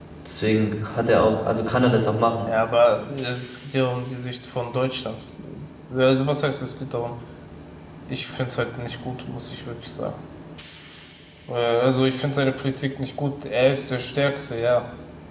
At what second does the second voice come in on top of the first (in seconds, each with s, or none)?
none